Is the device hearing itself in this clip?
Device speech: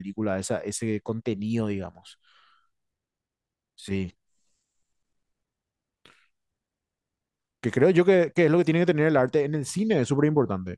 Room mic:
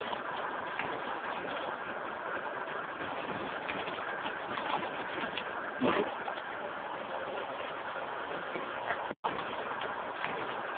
No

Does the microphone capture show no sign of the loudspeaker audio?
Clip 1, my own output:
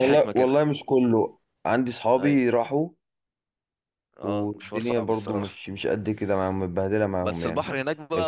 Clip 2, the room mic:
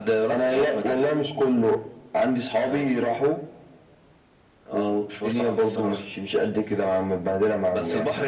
No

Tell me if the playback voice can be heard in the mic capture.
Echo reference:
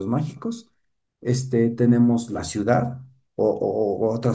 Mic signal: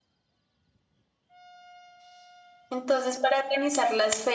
No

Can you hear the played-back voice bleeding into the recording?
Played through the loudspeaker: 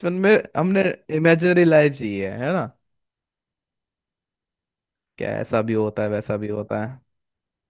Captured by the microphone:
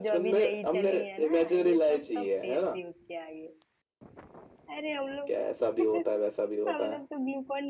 Yes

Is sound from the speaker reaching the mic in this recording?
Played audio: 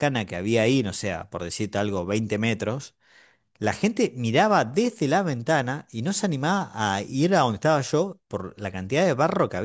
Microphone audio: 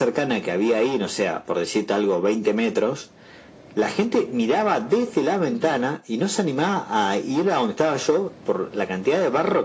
Yes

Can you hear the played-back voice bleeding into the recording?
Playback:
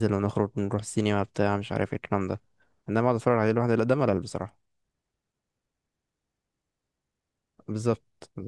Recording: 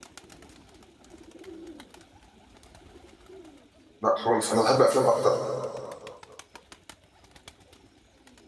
No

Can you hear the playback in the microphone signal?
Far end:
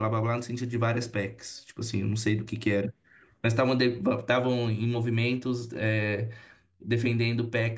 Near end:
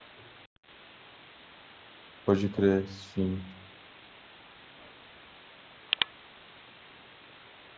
No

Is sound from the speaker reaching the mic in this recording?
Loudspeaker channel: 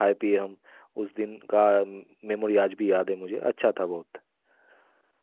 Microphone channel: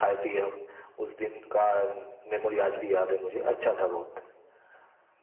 Yes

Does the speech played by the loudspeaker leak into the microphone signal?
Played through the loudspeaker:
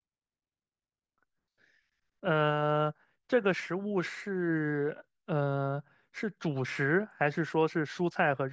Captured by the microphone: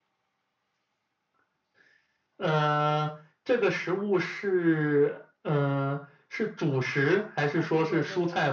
Yes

